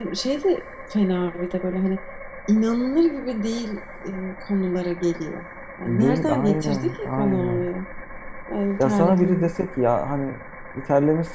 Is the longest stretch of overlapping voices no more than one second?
No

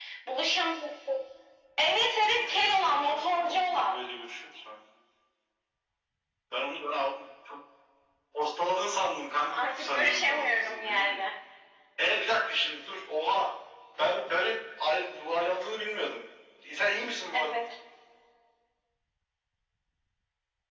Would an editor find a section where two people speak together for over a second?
Yes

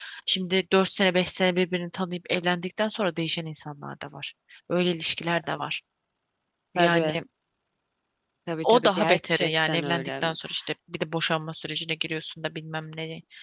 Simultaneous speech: Yes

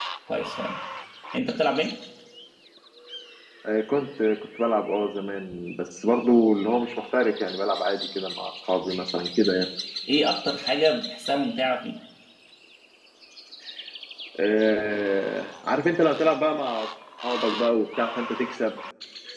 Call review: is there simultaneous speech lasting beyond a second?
No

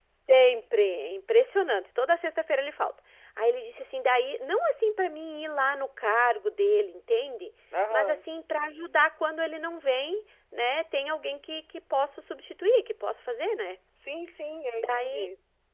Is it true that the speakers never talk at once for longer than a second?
Yes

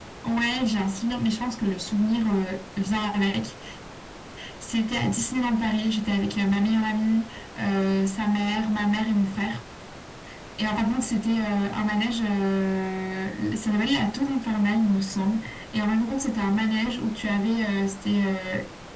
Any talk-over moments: No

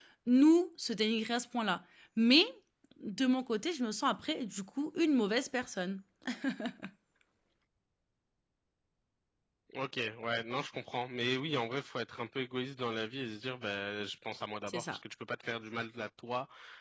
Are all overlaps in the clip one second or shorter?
Yes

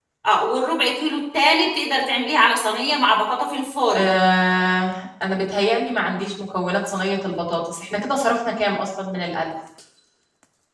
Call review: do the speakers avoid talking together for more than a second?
Yes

